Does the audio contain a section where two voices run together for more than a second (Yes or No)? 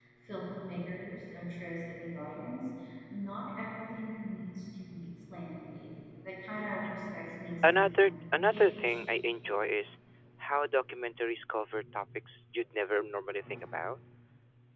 Yes